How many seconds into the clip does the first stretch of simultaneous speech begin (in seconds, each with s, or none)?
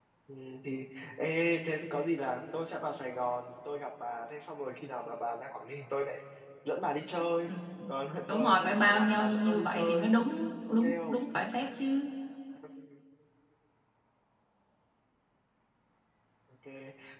8.3 s